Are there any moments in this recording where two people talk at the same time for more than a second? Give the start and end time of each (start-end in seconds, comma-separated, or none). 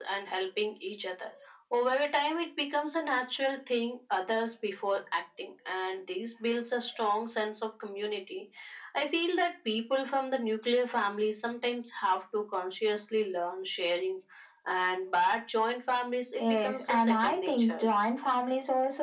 16.4-17.9